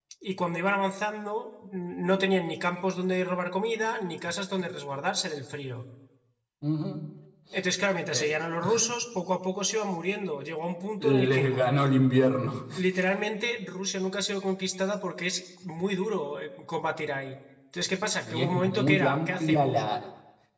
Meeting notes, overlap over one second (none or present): present